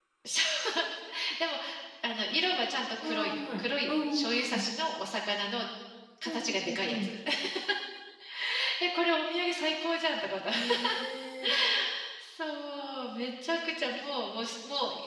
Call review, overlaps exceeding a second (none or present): present